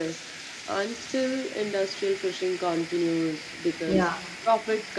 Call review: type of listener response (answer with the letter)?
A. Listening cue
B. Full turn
A